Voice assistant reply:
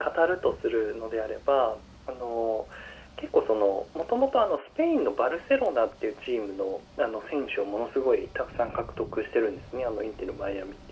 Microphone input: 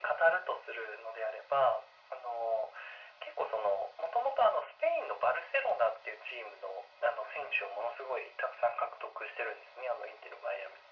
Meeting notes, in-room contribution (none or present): none